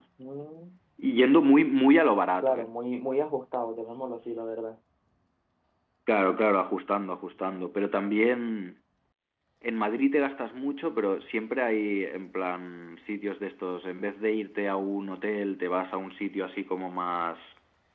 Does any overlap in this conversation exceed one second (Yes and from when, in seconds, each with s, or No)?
No